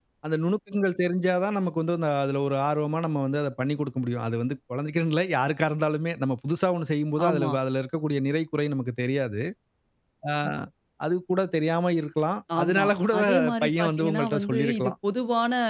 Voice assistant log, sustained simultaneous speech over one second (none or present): present